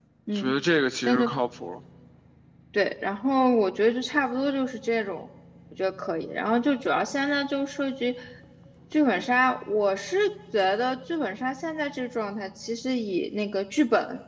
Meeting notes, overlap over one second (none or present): none